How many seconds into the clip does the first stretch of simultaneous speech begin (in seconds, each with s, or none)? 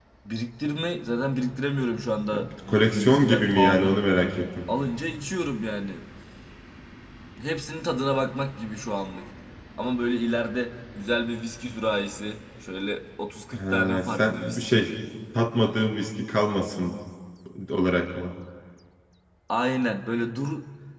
2.3 s